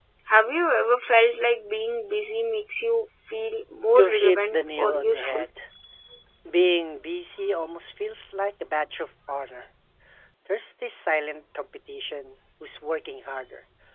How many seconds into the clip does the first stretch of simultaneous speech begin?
4.0 s

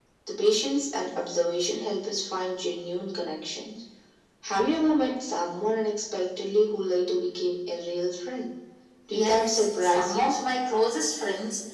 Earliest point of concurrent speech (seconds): 9.1 s

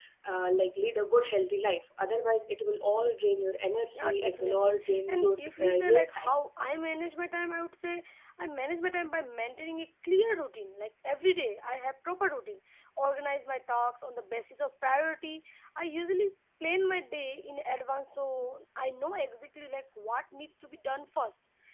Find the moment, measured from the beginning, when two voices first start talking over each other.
3.9 s

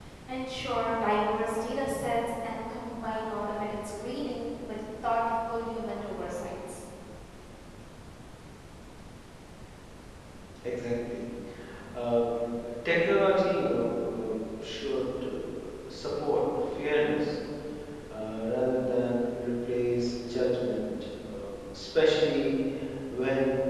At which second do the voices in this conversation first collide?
none

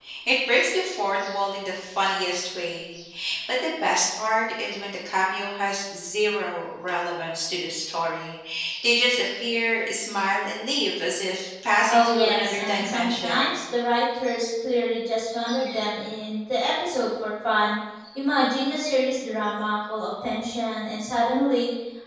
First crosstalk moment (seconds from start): 11.9 s

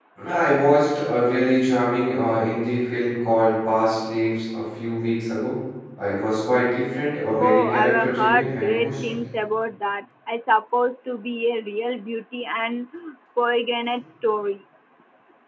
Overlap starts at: 7.3 s

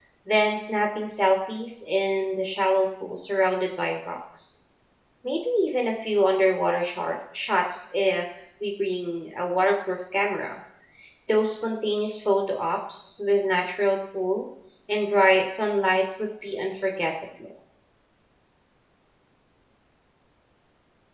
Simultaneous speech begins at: none

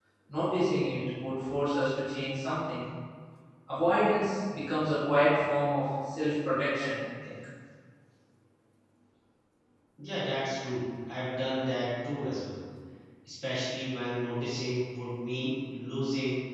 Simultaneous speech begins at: none

